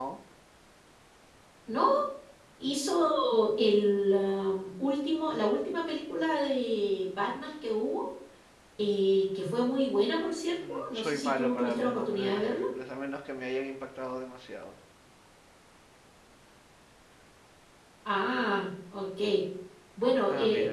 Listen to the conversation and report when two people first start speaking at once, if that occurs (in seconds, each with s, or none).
10.7 s